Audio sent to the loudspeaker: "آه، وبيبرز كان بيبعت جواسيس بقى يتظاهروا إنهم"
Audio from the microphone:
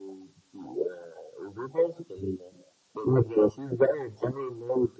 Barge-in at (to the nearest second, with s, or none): none